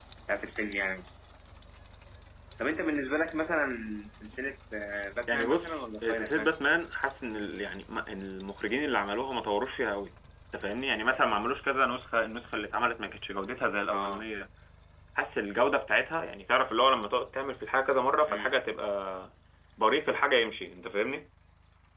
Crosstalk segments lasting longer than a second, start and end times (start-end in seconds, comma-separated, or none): 5.3-6.5